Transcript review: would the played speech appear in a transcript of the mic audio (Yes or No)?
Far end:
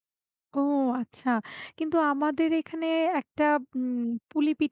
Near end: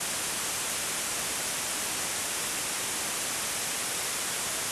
No